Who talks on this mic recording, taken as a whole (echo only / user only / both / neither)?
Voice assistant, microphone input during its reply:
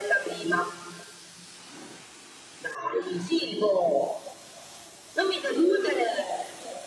echo only